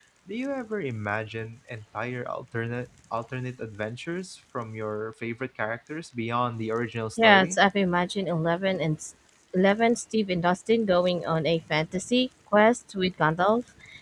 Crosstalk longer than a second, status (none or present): none